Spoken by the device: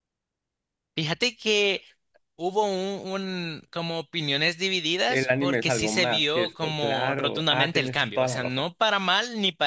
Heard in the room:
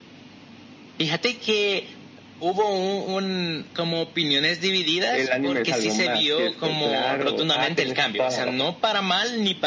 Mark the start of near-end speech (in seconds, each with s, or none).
none